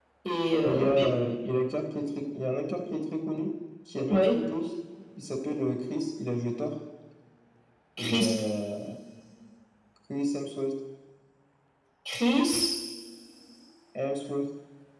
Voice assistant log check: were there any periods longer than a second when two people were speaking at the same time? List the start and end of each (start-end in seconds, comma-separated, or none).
none